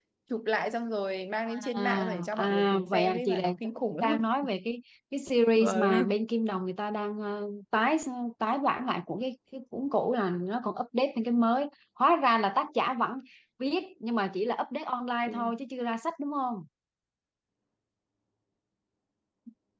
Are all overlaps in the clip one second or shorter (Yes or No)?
No